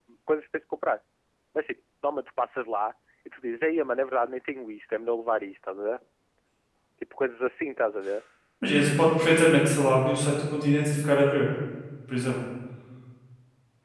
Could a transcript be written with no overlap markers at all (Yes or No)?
Yes